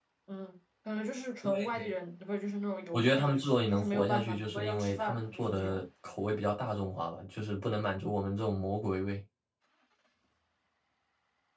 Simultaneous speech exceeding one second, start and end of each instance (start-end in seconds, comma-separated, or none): 2.9-5.8